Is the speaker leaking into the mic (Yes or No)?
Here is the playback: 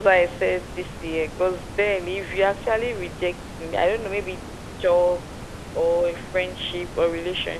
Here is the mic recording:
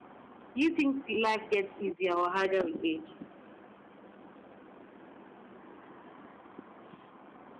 No